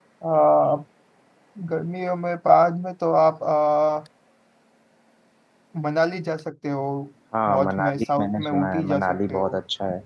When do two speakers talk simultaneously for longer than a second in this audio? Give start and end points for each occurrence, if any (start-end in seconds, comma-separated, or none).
7.5-9.5